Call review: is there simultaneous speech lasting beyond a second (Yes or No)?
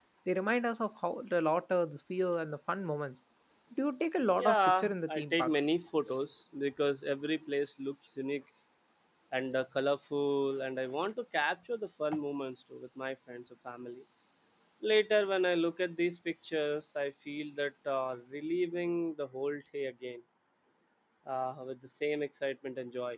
Yes